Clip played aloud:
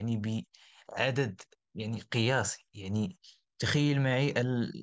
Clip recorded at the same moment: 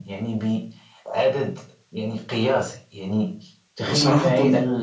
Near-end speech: present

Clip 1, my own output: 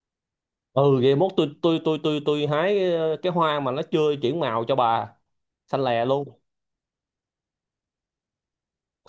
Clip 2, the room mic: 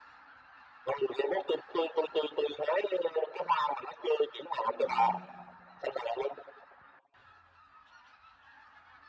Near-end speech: present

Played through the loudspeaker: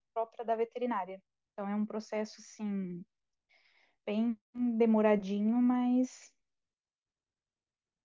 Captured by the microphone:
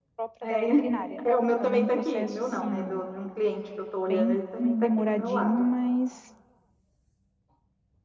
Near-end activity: present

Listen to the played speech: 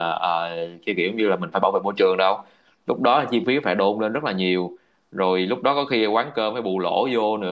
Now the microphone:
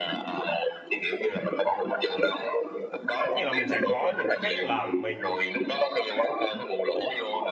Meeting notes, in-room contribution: present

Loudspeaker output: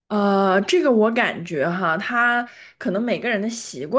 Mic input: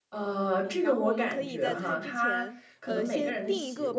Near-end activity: present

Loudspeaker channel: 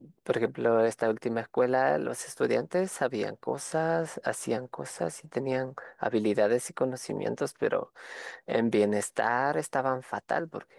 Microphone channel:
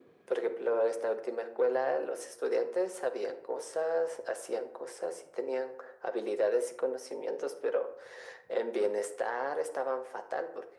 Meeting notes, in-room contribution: none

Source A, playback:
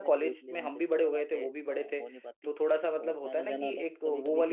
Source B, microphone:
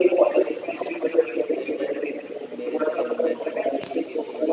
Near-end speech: present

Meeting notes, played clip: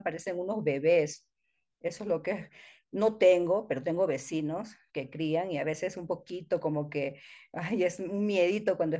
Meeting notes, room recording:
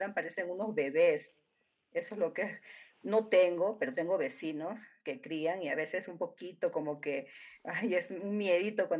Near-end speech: none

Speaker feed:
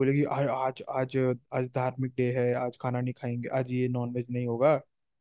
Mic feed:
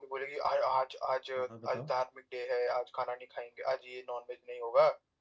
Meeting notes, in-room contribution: present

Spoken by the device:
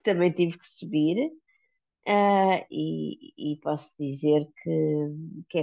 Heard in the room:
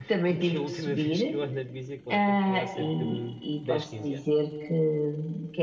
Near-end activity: present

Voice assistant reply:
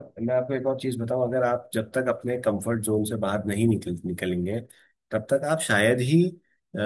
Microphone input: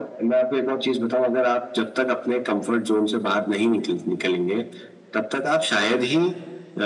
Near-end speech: none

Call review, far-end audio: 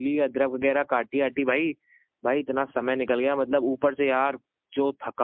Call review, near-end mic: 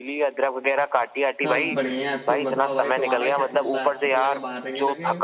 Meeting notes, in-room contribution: present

